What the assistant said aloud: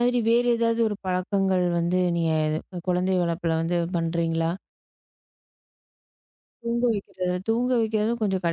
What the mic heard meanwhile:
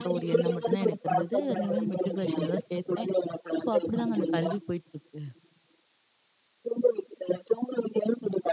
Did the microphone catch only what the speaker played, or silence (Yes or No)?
No